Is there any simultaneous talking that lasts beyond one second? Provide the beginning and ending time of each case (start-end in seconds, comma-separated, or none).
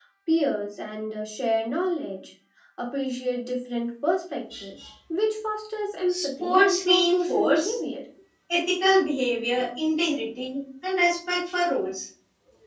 6.1-7.8